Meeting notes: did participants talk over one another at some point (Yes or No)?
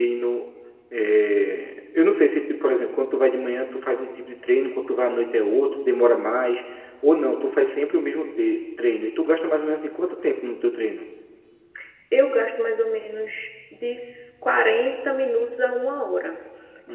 No